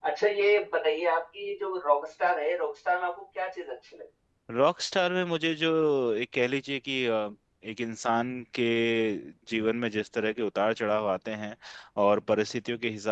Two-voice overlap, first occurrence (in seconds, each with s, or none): none